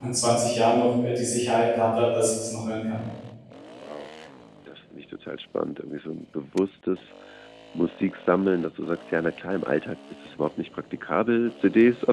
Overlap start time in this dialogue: none

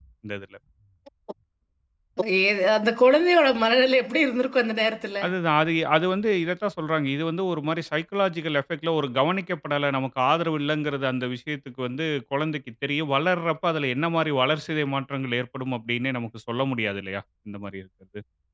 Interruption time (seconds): none

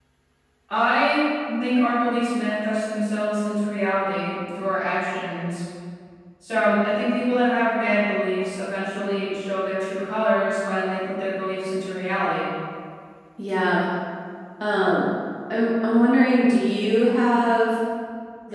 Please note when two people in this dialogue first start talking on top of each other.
none

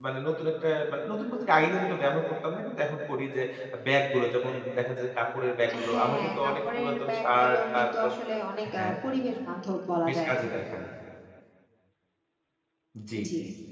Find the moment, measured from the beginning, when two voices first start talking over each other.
5.9 s

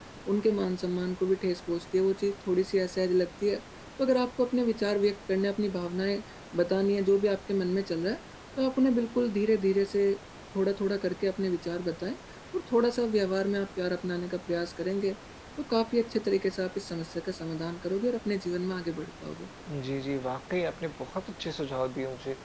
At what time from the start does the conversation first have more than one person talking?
none

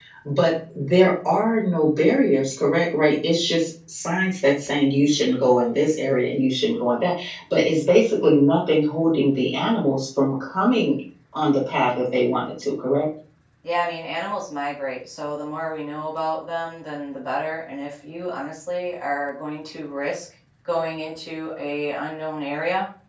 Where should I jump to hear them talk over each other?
none

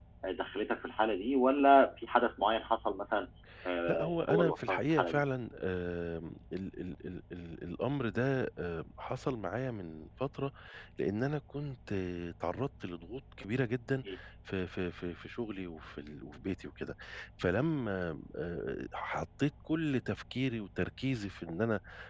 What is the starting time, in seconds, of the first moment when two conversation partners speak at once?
3.9 s

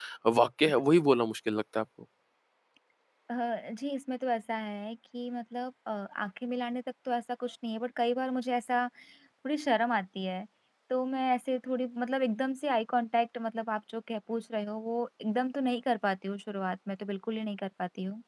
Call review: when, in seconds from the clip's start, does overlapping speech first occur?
none

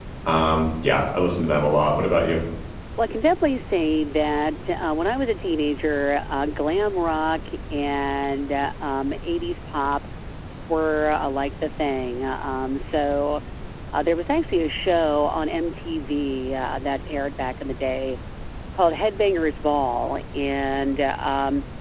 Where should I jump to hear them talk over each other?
none

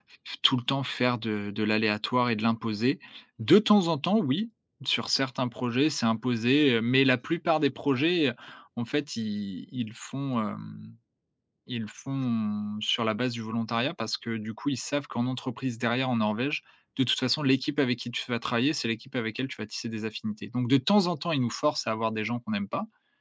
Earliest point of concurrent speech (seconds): none

